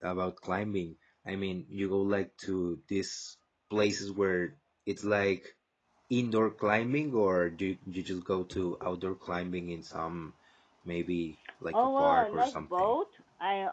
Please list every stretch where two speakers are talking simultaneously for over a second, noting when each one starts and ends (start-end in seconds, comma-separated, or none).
11.7-12.9